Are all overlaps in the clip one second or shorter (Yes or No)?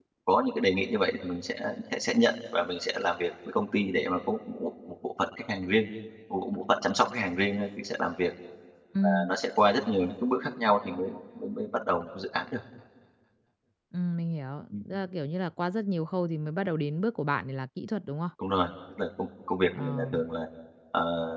Yes